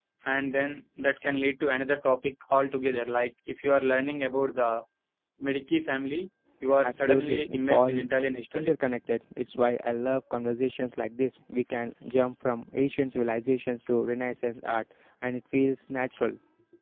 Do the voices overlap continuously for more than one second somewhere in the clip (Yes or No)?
Yes